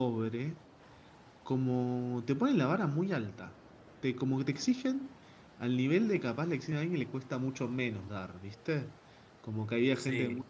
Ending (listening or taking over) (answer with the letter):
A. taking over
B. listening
B